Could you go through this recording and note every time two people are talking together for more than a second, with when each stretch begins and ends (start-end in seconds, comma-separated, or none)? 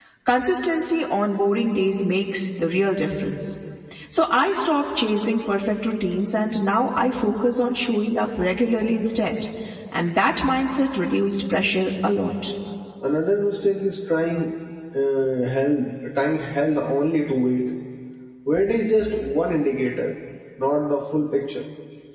none